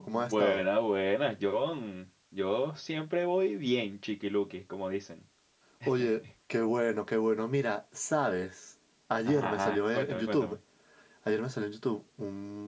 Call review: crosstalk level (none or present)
present